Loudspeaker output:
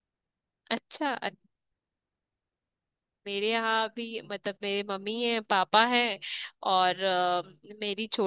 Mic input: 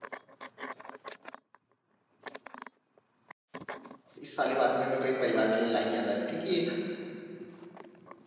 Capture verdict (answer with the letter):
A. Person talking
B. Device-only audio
A